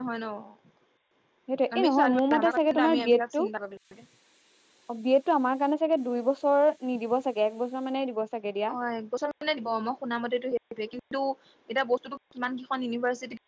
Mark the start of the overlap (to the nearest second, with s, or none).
2 s